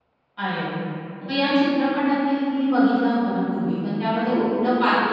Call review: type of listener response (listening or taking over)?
listening